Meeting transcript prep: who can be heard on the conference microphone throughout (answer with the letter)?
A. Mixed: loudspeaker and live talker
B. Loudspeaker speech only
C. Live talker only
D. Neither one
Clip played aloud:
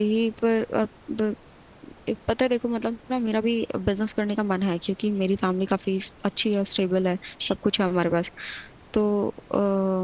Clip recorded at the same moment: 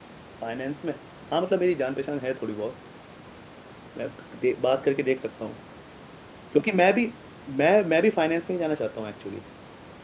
C